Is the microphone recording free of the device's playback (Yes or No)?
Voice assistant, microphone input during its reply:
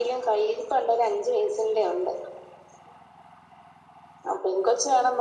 No